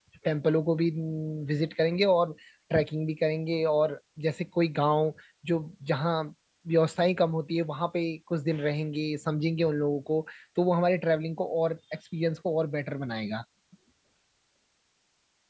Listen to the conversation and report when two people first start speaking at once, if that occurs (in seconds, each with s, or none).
none